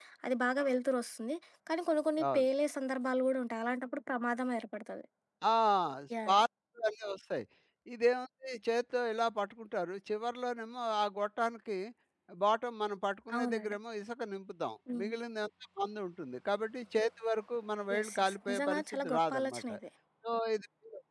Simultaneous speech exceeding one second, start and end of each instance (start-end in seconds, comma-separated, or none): 17.9-19.6